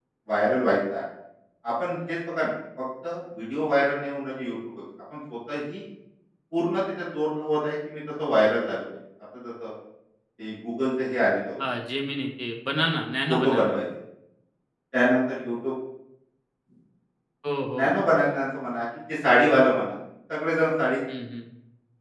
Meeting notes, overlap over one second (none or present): none